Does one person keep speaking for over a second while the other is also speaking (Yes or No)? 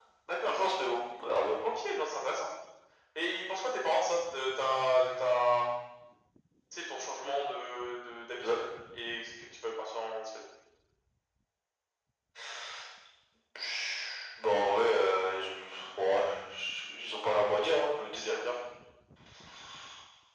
No